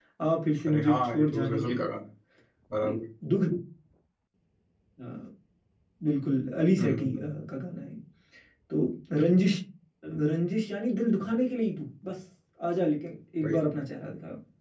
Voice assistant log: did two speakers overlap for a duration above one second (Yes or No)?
Yes